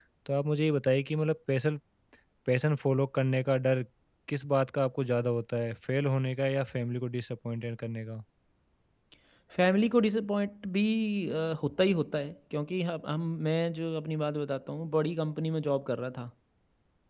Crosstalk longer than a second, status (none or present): none